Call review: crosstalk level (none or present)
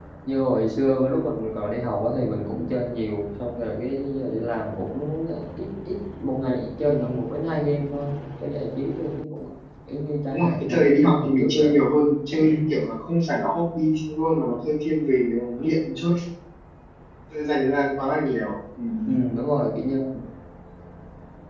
present